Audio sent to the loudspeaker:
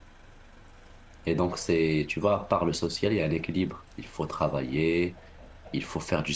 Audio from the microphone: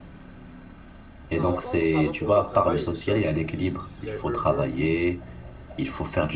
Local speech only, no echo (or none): par rapport, par rapport au travail, les gens qui disent qu'ils seraient heureux